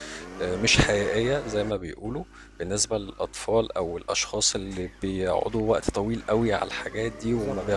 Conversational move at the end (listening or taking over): listening